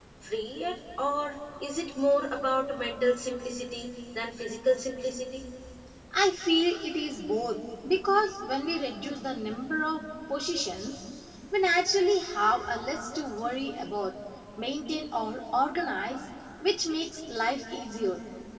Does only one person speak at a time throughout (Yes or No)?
Yes